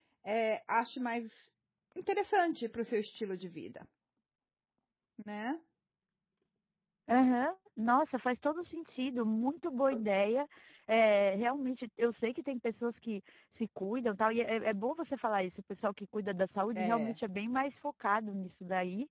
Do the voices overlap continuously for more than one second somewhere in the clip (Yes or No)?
No